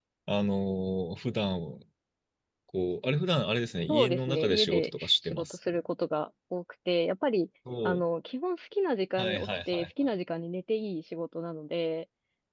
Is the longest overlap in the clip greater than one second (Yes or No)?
Yes